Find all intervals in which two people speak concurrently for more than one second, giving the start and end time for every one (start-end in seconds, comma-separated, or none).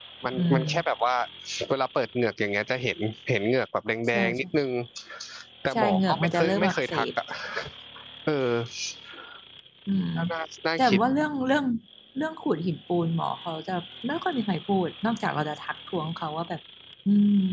5.7-7.0